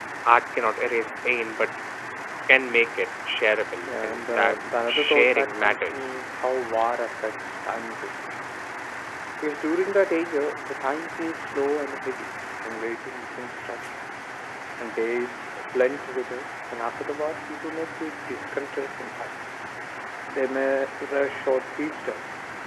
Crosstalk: present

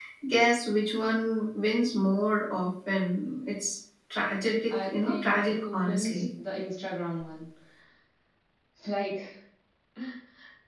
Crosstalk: present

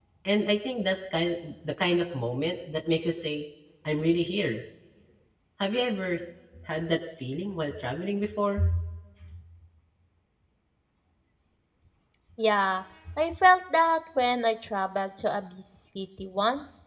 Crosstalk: none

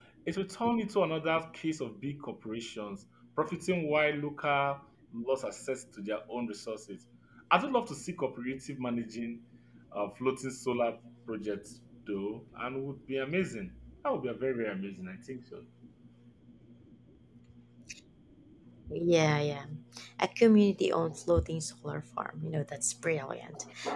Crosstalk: none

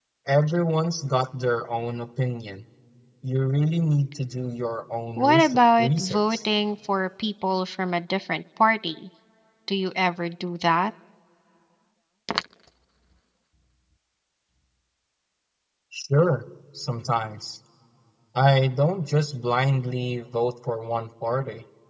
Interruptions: present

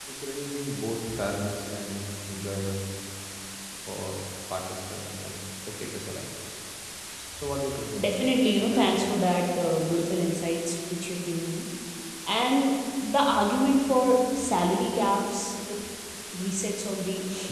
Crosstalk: present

